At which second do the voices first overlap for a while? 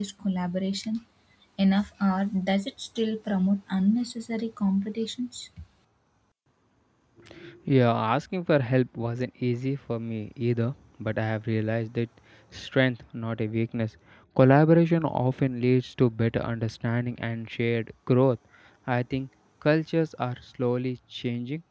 none

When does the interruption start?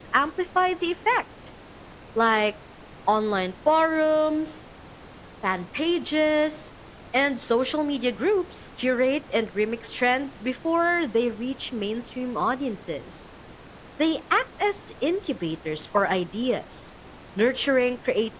none

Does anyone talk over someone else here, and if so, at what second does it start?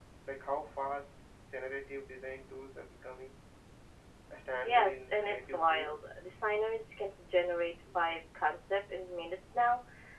4.6 s

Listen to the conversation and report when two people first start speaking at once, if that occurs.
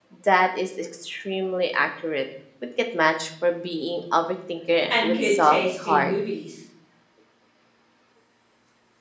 4.9 s

